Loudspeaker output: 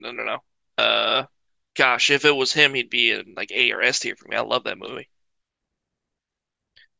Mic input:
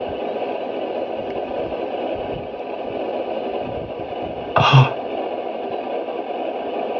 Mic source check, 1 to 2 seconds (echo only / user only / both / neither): neither